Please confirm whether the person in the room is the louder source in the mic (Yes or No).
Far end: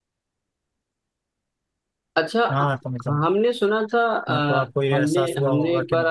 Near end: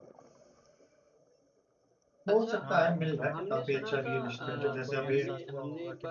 Yes